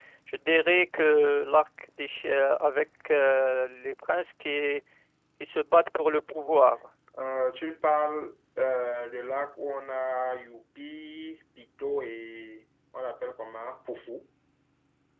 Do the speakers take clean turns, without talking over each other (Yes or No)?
Yes